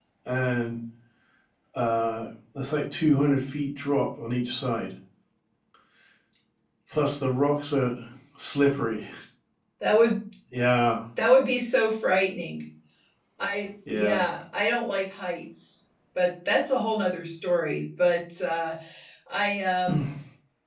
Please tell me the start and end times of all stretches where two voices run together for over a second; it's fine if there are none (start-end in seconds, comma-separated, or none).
none